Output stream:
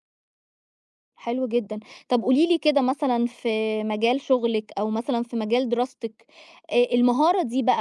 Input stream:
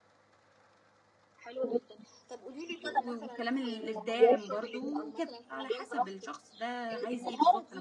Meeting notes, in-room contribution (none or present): present